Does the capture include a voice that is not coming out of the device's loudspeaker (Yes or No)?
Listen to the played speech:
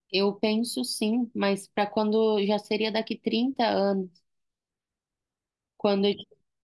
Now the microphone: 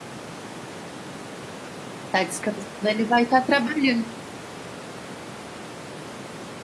Yes